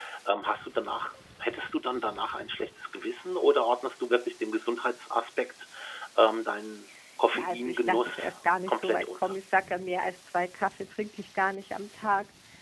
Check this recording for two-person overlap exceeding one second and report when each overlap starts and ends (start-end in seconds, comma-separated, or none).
7.3-9.4